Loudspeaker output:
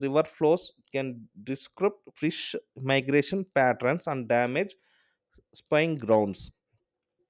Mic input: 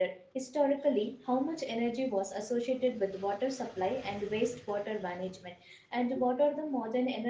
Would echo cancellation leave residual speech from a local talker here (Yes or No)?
Yes